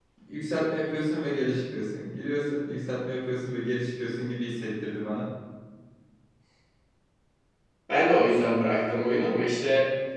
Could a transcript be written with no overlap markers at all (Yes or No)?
Yes